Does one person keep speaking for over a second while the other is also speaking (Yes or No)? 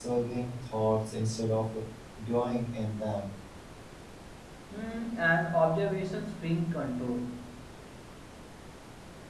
No